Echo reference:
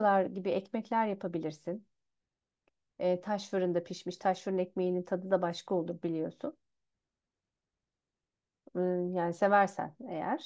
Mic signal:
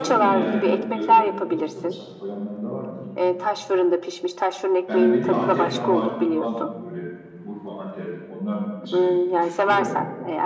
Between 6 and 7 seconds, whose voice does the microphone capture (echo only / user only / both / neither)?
both